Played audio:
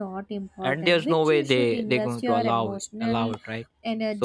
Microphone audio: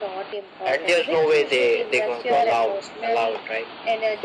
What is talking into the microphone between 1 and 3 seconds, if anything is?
echo only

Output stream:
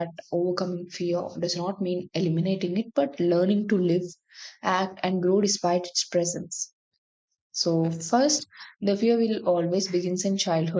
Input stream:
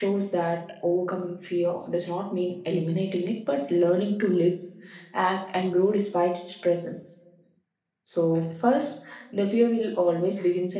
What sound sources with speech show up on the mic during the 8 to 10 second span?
echo only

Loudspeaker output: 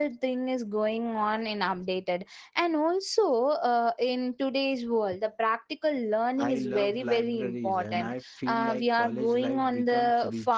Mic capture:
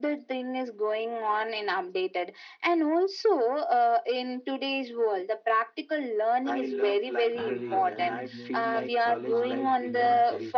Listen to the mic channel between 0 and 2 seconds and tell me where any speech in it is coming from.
echo only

